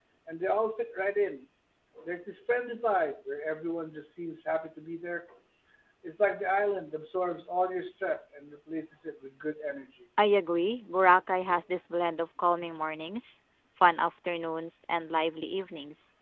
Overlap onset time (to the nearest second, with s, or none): none